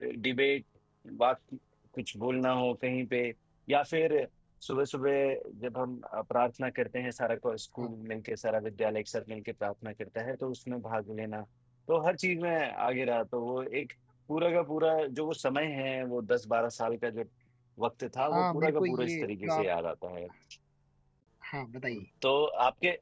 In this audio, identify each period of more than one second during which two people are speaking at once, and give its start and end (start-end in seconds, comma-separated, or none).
18.3-19.7